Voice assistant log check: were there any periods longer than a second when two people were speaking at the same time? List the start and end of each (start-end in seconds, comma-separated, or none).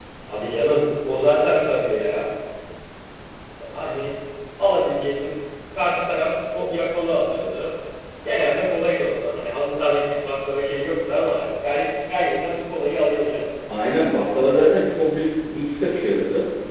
none